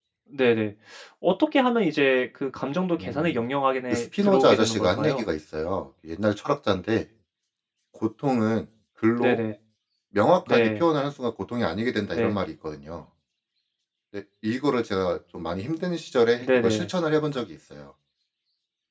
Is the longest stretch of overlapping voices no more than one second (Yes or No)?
No